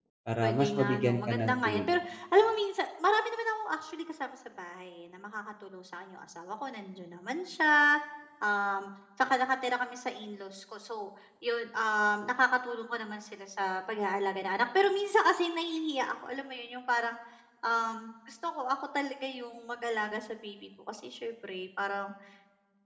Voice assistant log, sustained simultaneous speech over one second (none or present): present